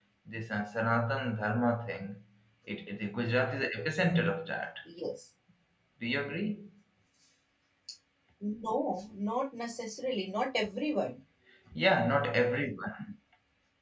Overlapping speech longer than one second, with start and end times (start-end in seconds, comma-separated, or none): none